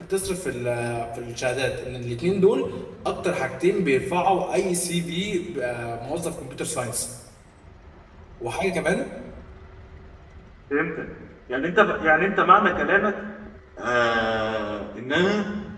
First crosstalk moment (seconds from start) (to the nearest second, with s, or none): none